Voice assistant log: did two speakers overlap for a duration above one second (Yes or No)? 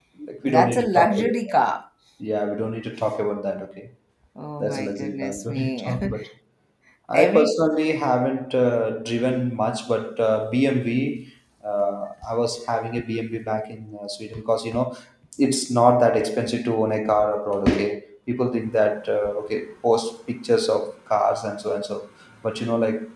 Yes